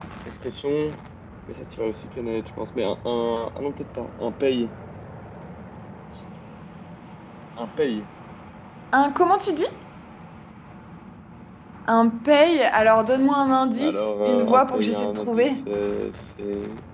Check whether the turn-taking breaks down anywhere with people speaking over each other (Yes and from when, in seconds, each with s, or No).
Yes, from 13.8 s